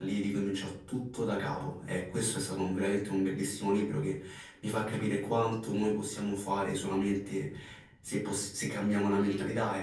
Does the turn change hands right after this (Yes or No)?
Yes